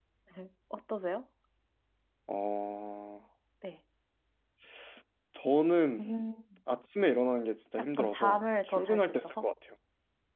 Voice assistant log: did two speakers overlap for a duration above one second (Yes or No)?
Yes